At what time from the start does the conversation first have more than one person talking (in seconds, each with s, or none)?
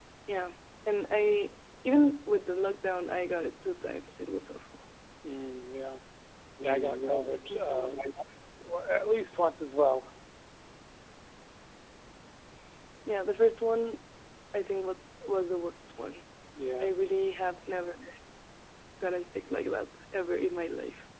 6.6 s